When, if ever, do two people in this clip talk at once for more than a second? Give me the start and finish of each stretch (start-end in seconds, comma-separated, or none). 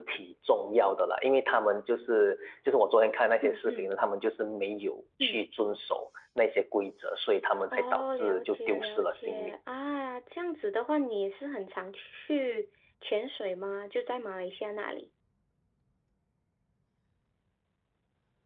7.7-9.5